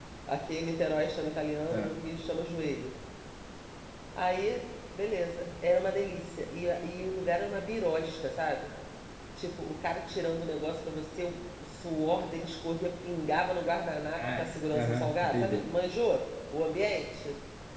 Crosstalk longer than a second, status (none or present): present